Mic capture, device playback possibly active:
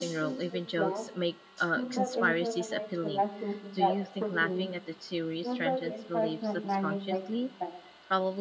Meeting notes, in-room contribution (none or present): present